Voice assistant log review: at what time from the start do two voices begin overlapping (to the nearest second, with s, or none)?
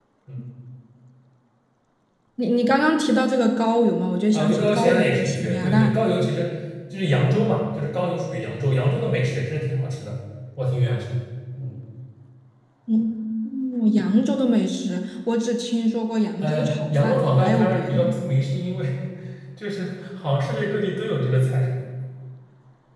4 s